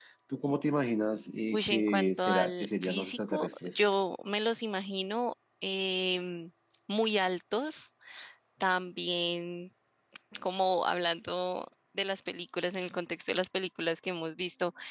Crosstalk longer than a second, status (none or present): present